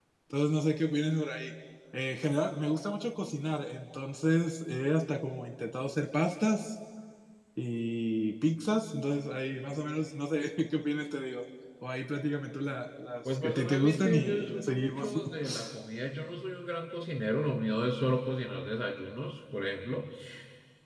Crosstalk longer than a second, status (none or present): present